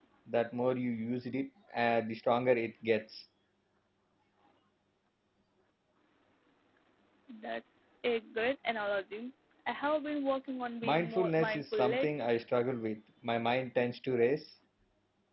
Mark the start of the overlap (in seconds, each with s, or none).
10.8 s